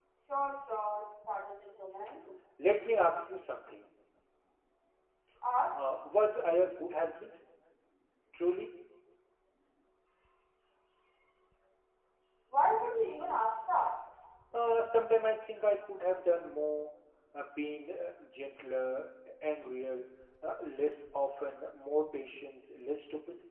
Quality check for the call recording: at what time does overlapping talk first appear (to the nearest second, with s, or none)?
none